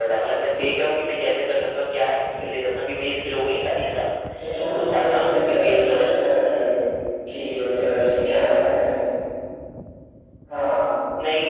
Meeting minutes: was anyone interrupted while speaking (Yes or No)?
Yes